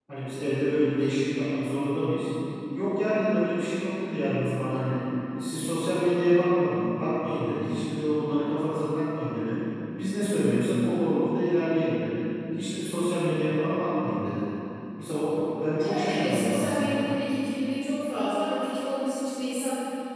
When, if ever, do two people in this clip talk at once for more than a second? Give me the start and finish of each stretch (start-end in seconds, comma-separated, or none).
15.8-17.1